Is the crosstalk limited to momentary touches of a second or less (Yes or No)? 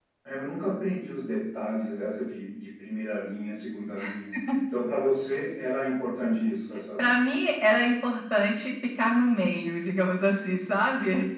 Yes